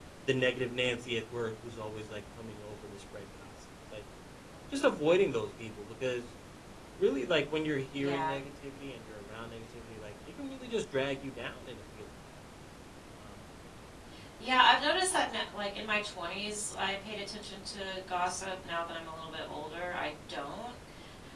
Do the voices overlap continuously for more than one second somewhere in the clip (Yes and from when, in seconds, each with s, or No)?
No